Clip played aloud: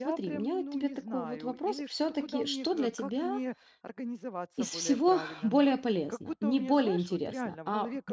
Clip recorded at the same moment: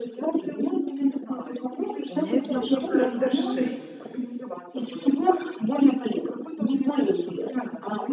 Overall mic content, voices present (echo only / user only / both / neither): both